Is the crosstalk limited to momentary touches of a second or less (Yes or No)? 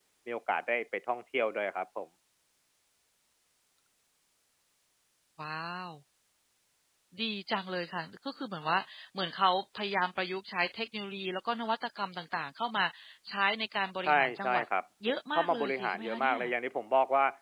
No